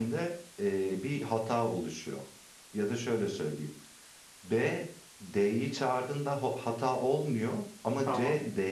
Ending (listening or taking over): listening